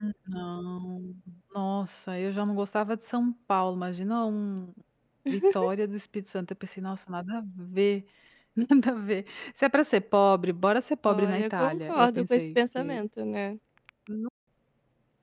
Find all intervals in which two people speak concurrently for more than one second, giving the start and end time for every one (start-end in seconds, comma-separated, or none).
11.1-13.0